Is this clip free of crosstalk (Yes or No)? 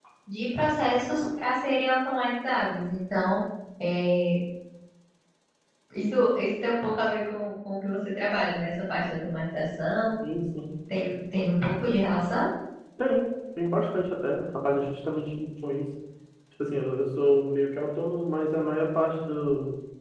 Yes